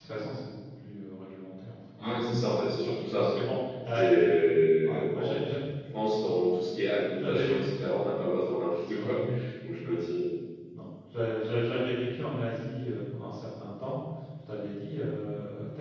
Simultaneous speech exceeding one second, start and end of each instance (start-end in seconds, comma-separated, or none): none